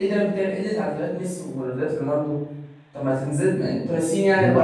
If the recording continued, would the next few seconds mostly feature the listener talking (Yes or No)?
Yes